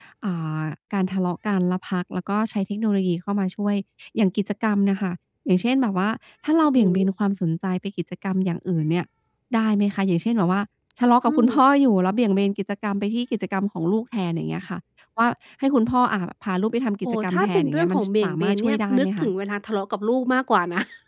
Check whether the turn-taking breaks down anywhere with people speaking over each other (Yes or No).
Yes